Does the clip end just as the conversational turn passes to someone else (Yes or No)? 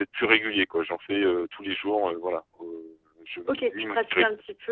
Yes